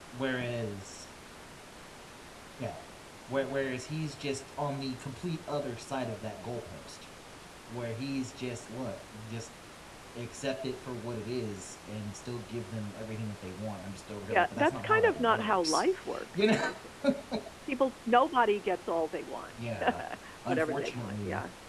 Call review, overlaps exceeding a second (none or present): present